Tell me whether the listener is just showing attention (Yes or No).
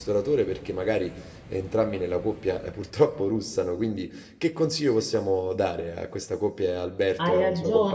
No